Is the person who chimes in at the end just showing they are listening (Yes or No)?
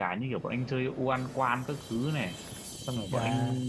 Yes